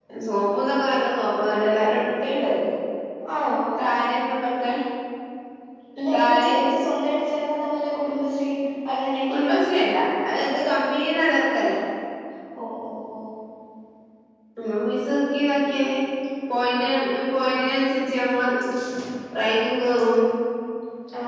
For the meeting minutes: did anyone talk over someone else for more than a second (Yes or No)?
No